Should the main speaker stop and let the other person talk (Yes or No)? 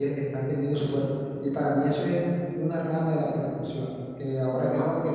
No